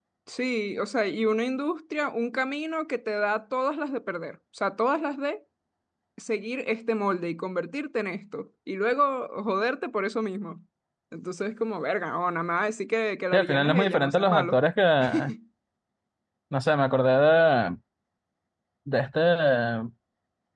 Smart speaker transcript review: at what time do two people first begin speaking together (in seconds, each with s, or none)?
13.3 s